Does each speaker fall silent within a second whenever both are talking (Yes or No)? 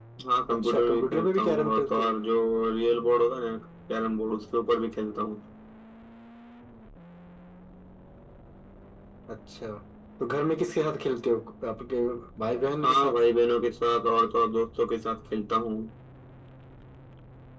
No